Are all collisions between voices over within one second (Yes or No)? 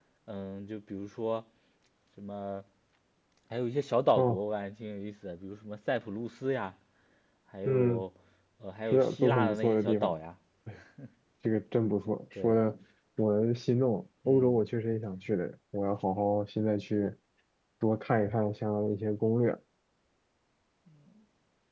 No